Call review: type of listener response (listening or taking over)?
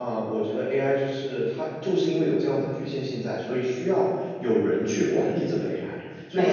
listening